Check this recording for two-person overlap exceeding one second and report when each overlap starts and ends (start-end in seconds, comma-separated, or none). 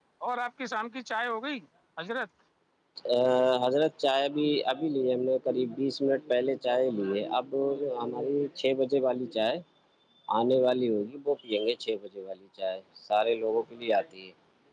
none